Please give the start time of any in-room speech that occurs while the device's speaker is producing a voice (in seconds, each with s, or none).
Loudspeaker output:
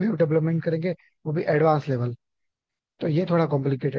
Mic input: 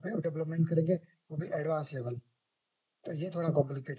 none